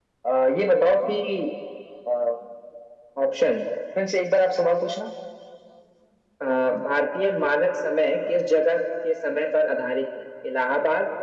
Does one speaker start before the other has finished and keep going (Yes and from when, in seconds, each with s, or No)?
No